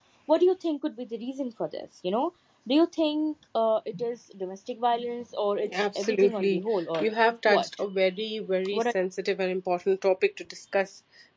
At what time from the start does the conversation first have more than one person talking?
5.6 s

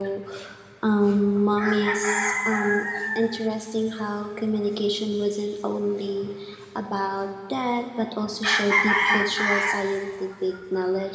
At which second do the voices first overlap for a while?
none

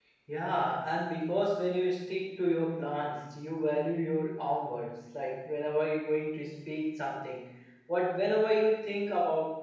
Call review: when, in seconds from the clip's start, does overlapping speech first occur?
none

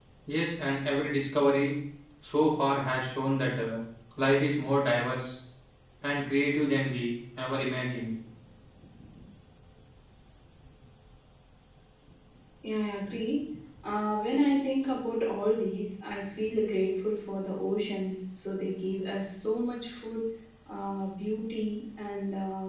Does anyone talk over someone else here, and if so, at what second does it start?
none

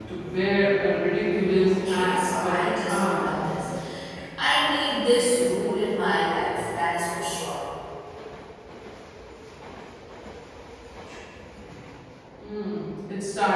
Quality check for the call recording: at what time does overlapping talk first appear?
1.4 s

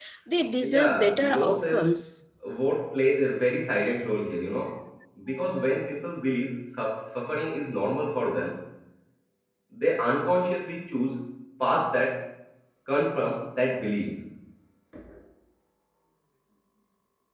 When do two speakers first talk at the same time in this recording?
0.6 s

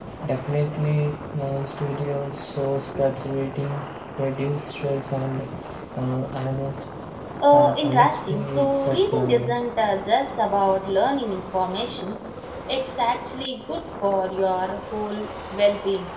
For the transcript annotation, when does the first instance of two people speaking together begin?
7.5 s

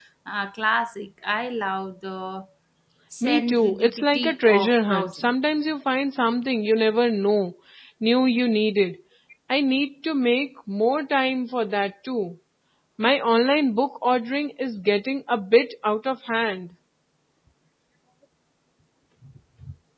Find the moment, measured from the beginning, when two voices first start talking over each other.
3.2 s

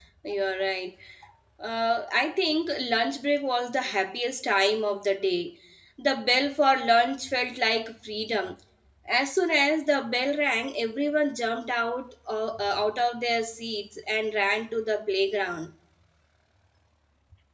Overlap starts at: none

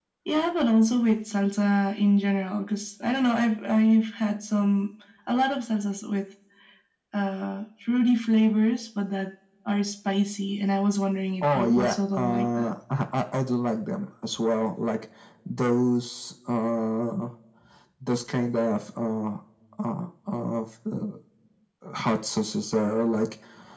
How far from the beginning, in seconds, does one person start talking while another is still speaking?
11.4 s

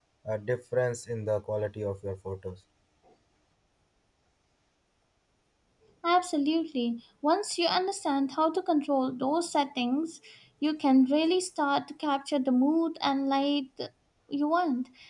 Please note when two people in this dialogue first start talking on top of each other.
none

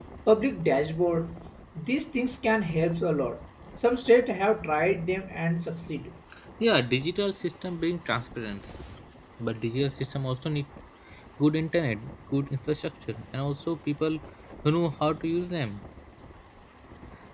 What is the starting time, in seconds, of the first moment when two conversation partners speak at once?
none

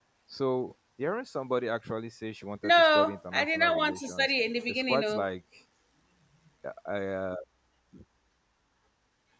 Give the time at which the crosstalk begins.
2.6 s

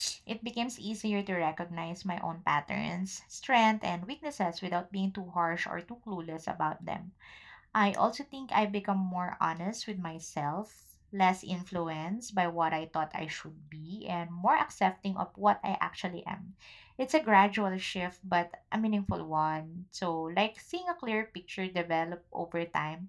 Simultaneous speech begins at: none

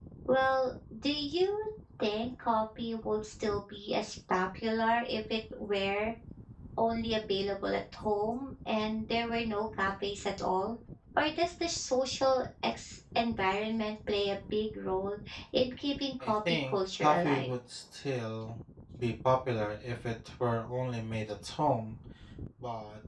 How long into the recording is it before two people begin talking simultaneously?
16.2 s

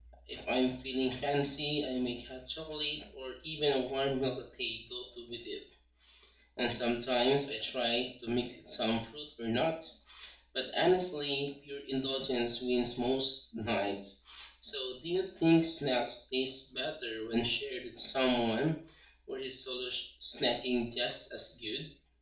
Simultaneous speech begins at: none

